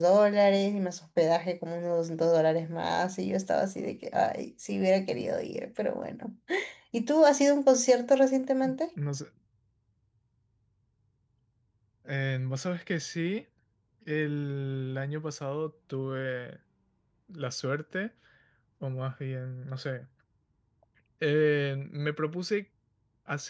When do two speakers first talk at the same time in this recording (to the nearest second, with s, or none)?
none